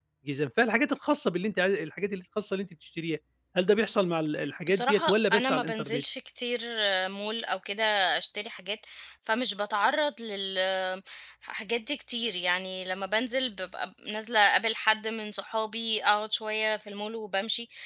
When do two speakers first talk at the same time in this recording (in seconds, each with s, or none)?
4.7 s